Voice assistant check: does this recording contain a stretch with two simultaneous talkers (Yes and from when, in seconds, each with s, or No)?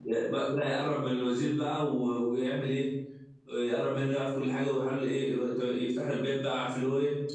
No